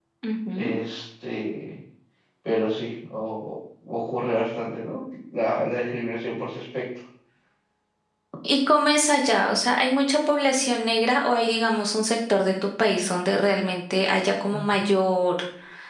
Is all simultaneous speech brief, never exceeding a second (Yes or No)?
Yes